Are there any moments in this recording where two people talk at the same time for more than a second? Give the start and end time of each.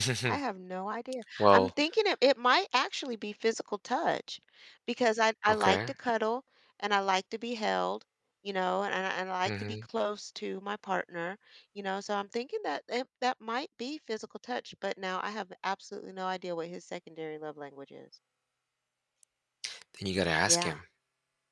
none

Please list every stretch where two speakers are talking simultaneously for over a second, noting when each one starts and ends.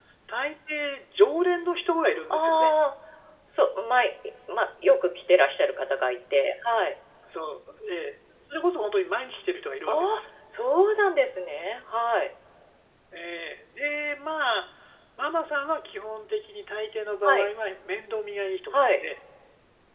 none

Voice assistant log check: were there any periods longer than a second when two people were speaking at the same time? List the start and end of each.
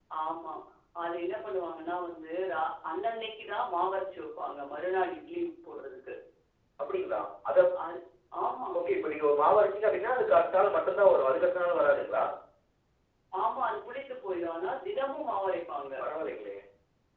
none

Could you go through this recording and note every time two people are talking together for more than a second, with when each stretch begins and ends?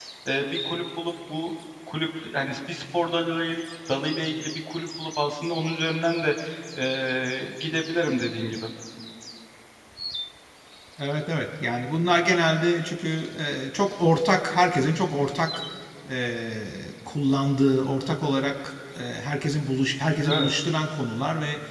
none

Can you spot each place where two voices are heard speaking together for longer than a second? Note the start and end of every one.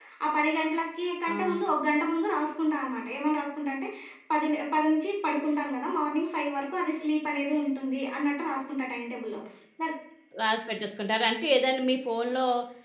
none

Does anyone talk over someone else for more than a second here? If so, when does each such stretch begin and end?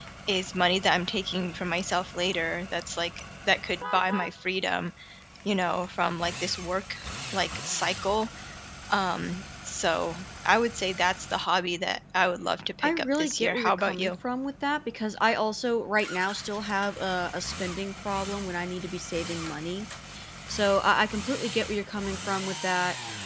12.8-14.1

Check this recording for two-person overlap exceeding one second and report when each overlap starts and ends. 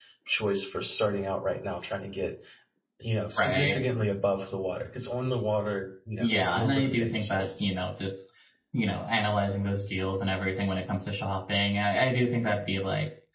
6.2-7.5

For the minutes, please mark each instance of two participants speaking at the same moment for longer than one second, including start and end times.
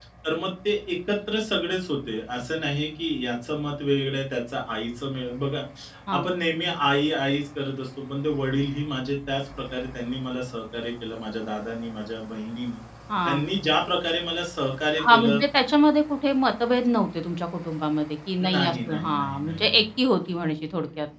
18.5-19.9

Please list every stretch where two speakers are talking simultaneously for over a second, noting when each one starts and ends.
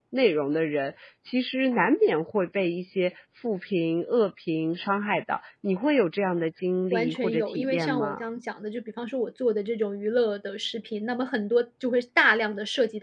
6.9-8.2

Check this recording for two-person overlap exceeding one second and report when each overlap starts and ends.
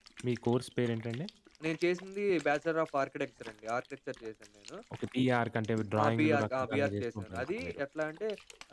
6.0-7.8

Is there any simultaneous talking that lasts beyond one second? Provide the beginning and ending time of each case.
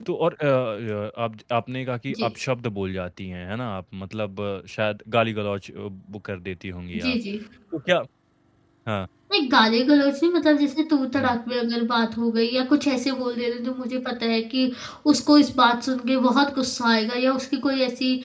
none

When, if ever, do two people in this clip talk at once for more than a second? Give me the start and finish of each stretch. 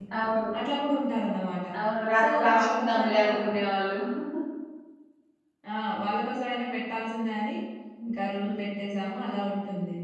2.2-3.4

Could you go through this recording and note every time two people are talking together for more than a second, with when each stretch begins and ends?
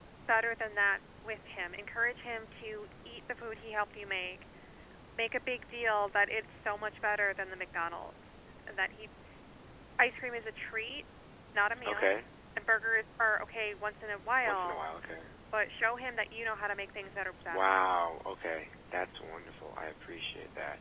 none

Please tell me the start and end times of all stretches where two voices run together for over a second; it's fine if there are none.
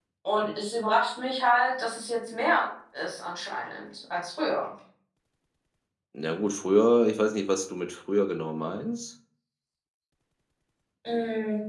none

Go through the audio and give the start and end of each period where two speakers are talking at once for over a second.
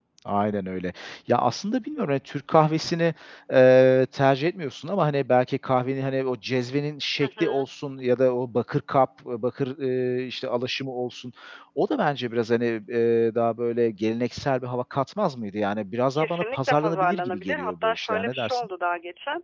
16.2-18.7

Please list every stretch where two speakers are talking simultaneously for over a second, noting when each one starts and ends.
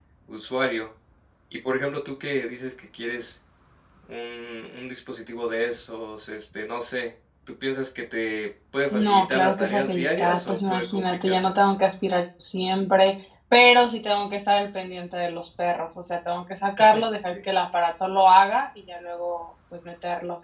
8.9-11.5

